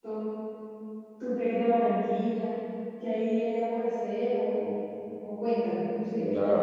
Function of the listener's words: taking over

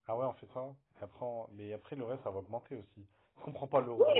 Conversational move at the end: taking over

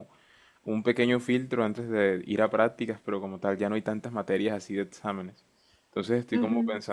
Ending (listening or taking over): listening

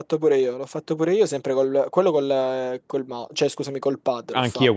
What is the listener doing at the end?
taking over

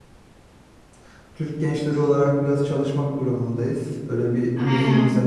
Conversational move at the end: taking over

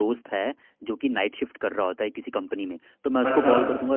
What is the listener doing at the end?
listening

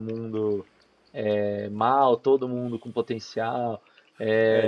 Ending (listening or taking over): taking over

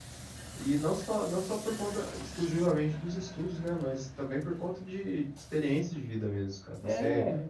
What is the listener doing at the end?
listening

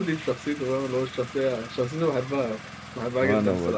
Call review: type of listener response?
listening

